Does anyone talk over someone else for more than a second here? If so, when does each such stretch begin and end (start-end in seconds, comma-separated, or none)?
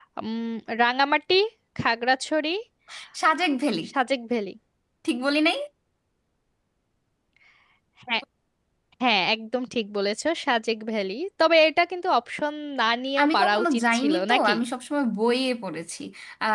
13.2-14.6